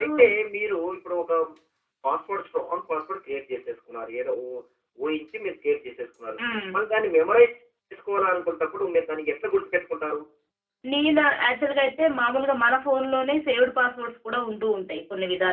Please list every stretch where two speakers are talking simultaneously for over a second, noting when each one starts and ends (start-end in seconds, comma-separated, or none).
none